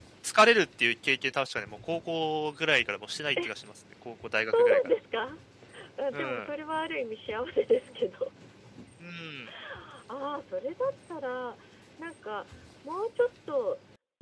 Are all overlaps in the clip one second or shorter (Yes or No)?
Yes